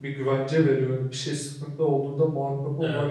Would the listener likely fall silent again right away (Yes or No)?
No